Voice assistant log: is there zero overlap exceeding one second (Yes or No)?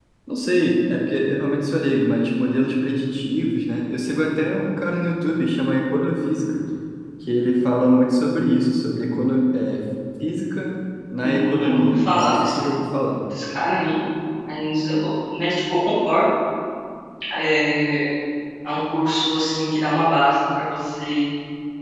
No